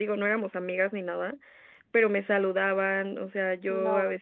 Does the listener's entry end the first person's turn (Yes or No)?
No